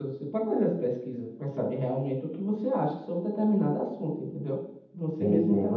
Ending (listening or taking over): taking over